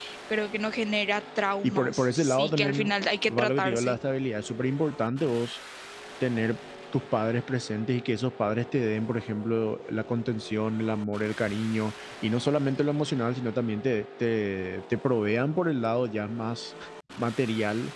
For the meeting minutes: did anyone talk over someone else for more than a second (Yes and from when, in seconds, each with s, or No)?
Yes, from 1.6 s